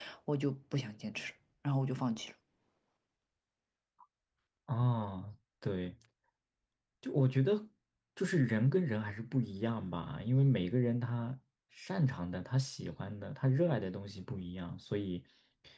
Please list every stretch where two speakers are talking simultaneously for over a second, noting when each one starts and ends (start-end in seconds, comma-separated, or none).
none